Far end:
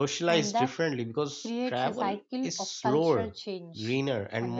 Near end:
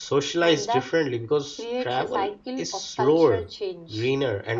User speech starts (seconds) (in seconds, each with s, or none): none